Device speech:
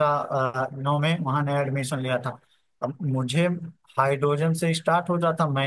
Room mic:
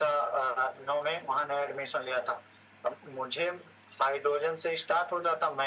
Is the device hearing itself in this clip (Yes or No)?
Yes